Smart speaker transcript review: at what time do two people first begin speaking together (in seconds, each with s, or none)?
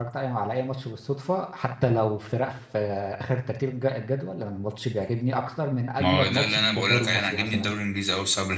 6.0 s